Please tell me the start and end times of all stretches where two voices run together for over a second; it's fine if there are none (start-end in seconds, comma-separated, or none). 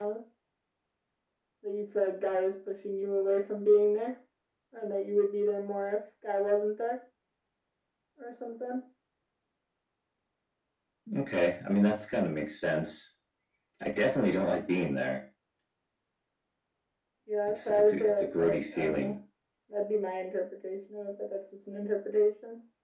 17.5-19.1